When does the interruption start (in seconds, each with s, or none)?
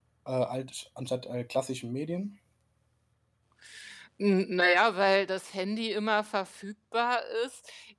none